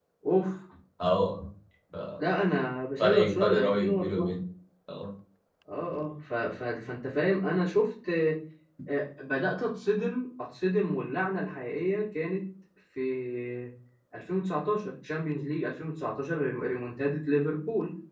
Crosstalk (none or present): present